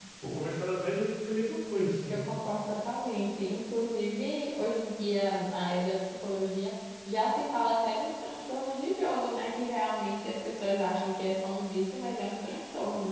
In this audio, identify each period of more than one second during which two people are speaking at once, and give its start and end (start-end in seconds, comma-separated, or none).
none